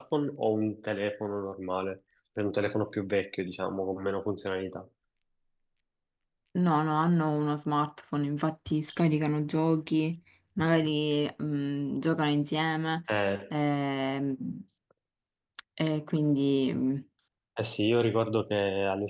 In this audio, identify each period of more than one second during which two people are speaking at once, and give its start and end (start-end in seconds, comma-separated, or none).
none